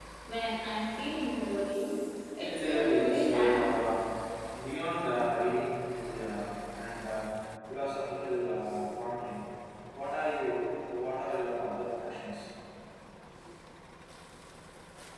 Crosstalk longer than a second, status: present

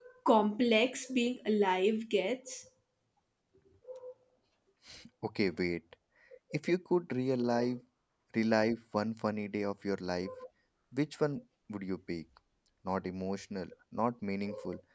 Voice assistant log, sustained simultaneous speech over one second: none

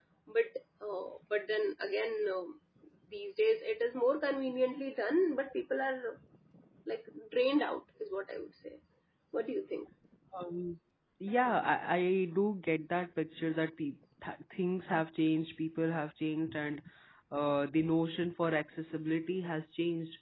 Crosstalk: none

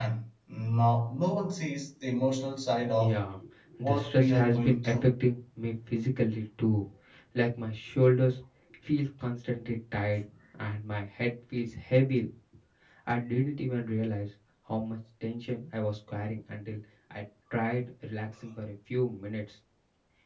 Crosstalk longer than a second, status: present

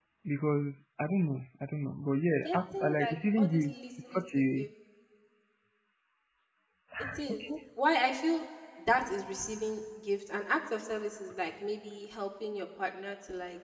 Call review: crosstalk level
present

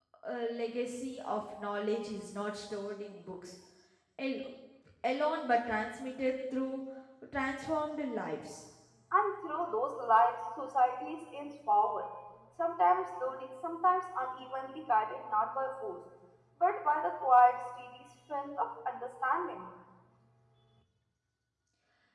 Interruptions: none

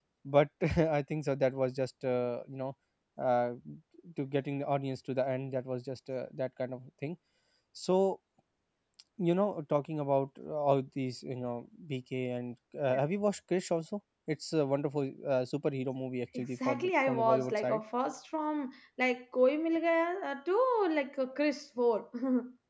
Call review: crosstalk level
present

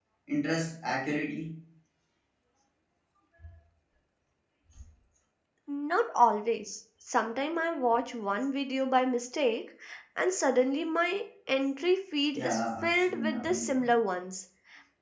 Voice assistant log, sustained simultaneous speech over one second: present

